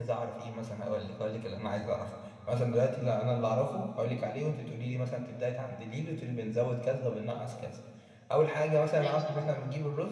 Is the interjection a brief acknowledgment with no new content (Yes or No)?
Yes